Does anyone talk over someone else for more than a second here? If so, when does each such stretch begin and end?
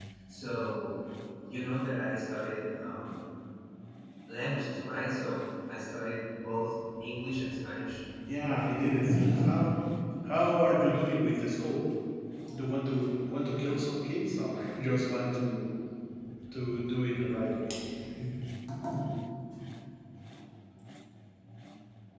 8.4-9.6

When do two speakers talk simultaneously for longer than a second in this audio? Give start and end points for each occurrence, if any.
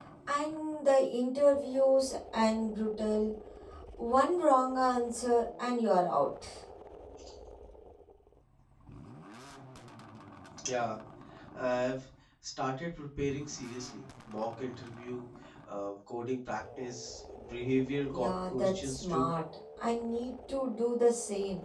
18.1-19.3

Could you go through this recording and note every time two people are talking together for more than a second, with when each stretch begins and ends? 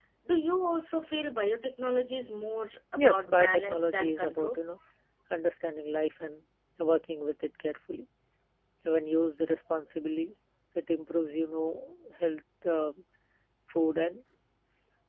3.0-4.6

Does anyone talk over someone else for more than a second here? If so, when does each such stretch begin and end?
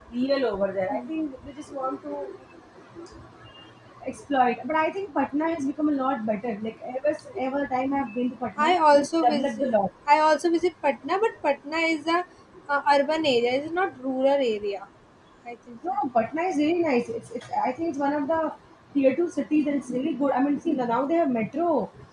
8.6-9.8

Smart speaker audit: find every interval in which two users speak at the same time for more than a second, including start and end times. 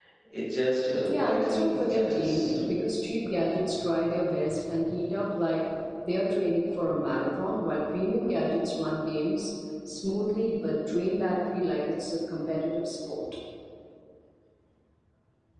1.1-2.5

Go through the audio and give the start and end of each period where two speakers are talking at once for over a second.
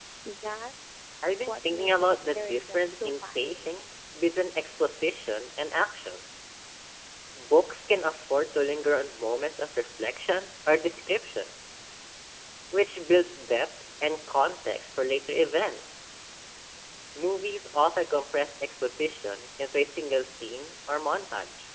1.4-3.7

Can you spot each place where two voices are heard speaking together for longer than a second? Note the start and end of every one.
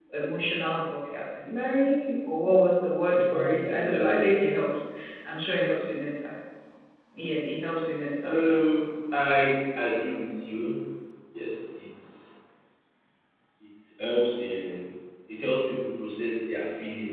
3.1-4.4

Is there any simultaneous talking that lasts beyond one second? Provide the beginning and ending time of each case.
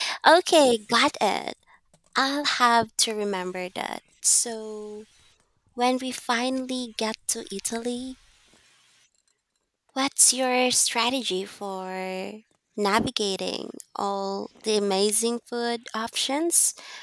none

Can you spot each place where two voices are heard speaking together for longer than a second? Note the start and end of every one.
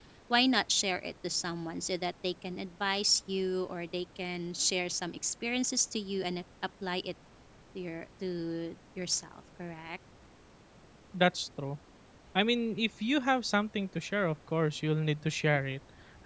none

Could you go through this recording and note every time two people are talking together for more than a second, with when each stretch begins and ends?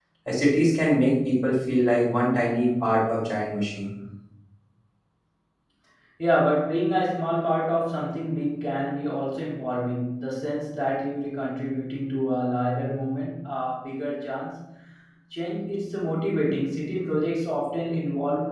none

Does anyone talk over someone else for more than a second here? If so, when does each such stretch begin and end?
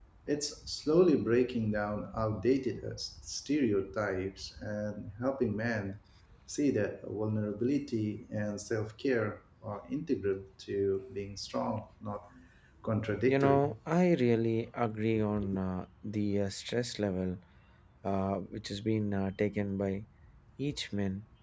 none

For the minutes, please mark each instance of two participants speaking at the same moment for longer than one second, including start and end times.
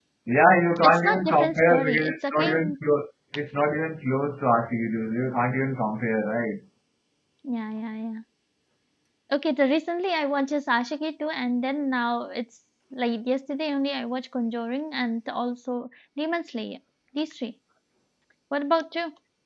0.8-2.8

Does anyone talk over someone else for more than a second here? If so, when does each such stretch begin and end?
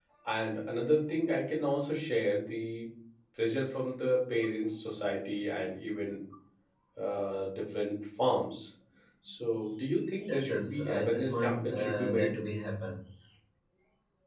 10.3-12.4

